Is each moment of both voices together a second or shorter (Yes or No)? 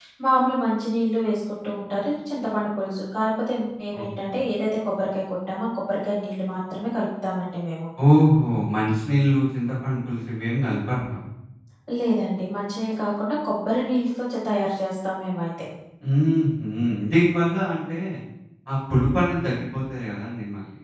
Yes